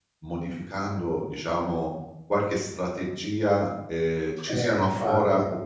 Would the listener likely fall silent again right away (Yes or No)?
Yes